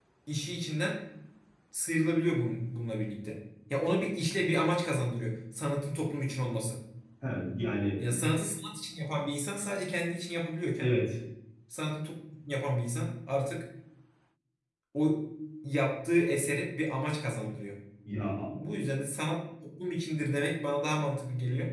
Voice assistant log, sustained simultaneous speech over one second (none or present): none